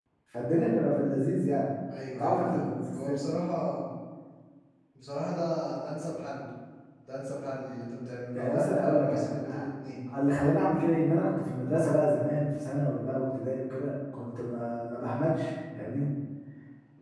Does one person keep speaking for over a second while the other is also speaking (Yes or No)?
Yes